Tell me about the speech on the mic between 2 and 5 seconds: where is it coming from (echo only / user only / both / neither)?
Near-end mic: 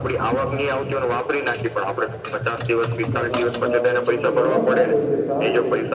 both